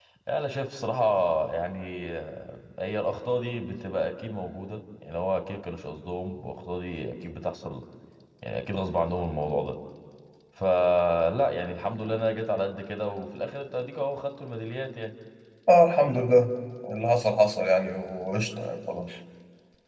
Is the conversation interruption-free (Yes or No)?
Yes